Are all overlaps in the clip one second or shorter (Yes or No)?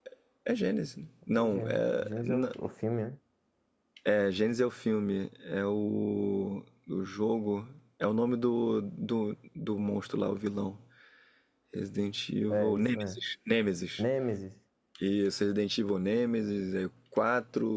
No